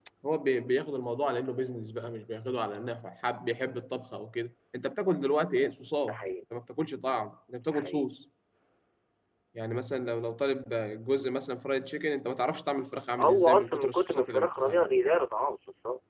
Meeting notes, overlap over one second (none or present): present